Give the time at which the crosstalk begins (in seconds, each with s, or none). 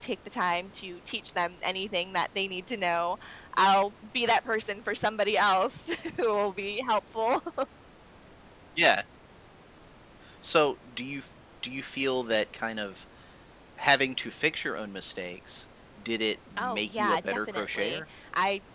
16.6 s